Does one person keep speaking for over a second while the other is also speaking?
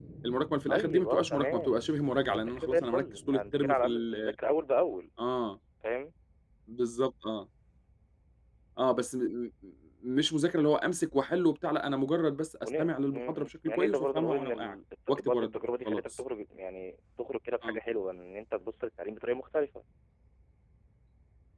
Yes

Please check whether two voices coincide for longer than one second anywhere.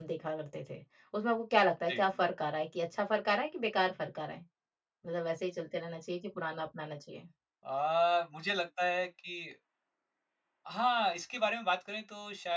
No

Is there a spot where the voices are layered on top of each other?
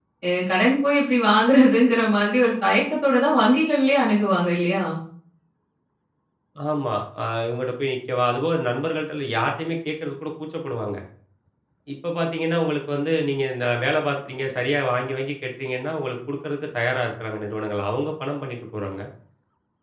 No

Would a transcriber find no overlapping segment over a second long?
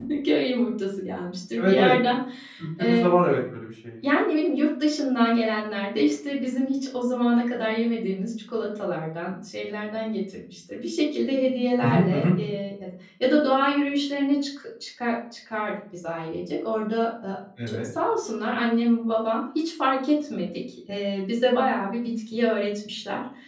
Yes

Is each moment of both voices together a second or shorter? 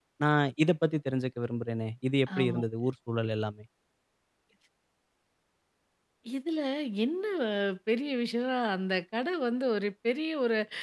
Yes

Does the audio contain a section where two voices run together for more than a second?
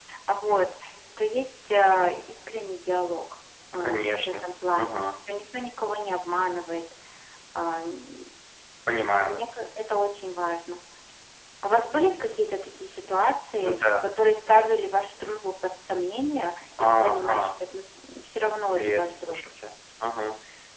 Yes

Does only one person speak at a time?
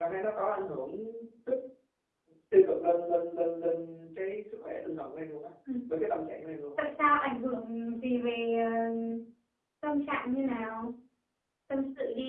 Yes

